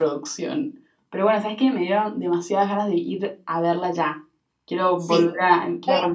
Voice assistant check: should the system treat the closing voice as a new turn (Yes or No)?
Yes